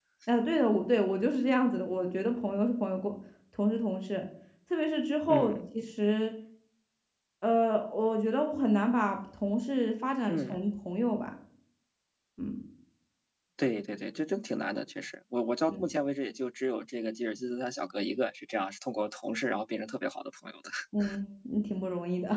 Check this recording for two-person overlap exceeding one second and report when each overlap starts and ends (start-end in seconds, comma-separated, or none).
none